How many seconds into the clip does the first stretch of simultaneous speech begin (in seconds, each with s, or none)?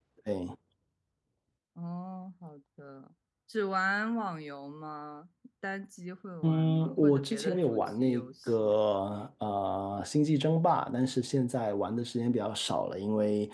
6.4 s